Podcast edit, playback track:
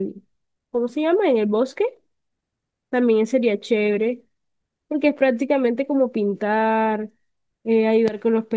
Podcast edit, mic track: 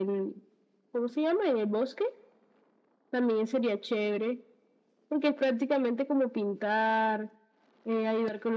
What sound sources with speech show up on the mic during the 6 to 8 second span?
echo only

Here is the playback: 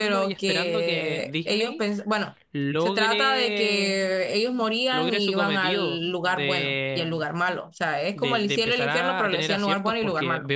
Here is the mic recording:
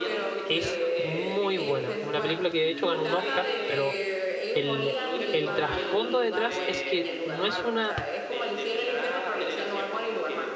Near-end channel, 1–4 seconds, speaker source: both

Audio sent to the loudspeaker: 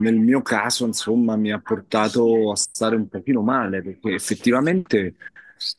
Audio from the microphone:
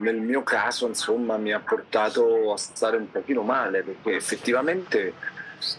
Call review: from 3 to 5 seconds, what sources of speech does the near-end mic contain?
echo only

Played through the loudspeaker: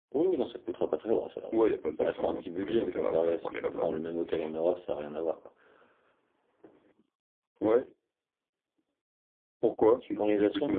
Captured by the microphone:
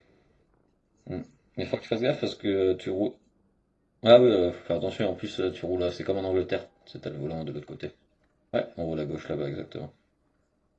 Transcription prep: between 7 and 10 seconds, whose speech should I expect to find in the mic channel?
user only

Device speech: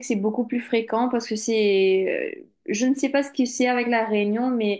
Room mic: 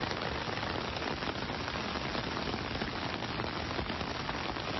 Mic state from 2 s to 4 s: neither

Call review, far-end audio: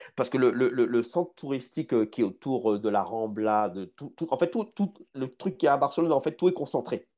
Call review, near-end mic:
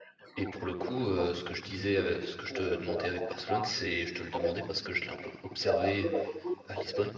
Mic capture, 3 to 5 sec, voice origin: both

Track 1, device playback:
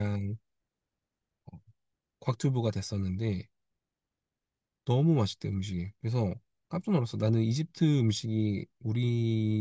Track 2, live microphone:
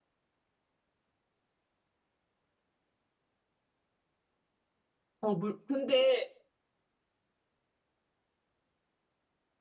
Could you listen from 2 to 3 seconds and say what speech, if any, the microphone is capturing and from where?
neither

